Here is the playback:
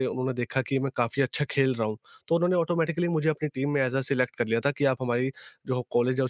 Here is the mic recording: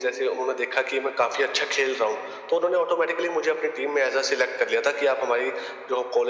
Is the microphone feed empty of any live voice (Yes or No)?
Yes